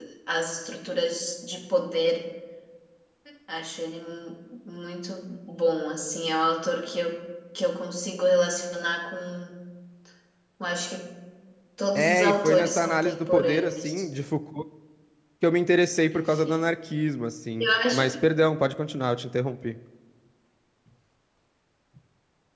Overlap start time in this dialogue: 12 s

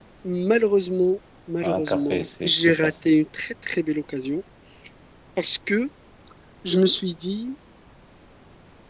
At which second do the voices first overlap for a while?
2 s

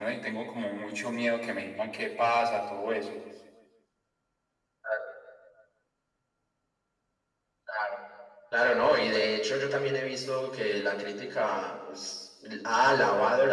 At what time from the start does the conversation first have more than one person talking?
none

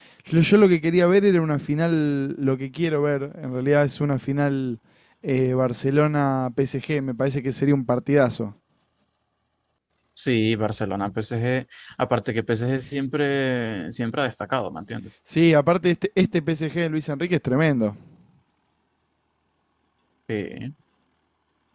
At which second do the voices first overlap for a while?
none

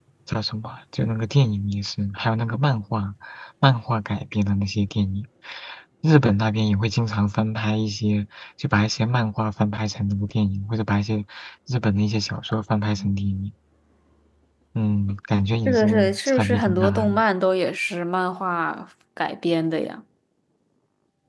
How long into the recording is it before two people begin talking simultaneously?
16 s

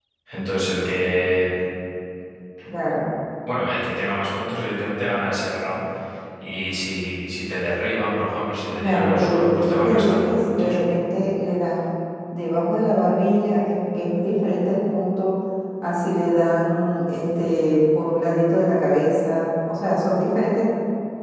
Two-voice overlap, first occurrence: 9 s

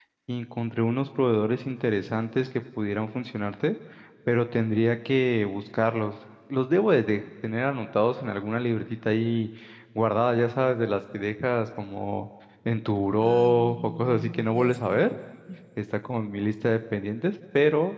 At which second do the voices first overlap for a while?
13 s

